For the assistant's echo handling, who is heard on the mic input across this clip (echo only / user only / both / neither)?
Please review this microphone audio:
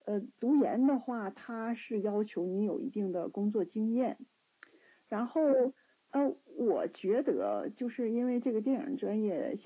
echo only